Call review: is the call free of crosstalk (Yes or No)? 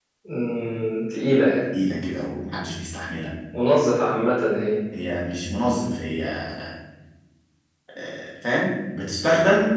Yes